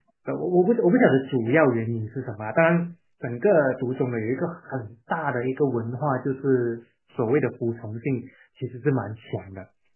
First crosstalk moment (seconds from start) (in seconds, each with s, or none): none